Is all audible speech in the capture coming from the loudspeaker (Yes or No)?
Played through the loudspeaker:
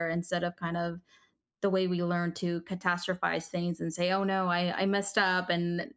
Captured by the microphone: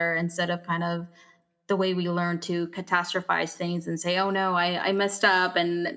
Yes